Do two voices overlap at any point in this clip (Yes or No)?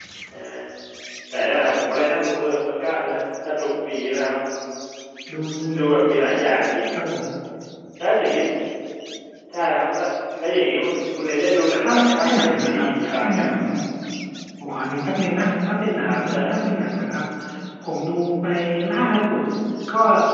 Yes